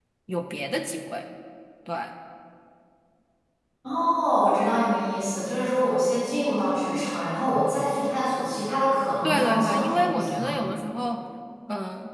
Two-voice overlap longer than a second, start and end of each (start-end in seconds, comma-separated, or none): 9.2-10.5